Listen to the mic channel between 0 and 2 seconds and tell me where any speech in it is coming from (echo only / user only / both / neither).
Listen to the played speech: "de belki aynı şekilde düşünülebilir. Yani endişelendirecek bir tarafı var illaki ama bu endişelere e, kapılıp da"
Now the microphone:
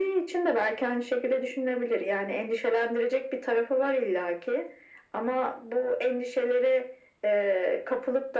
echo only